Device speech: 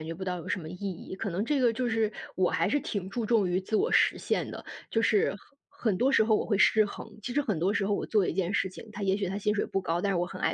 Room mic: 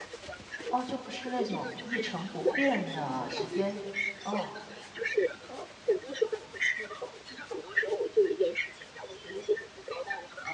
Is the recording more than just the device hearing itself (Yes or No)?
Yes